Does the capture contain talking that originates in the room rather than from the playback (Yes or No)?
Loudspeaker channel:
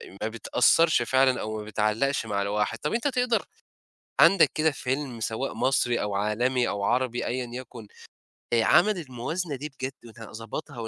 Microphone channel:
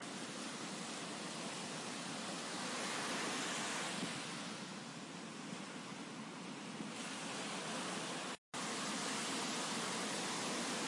No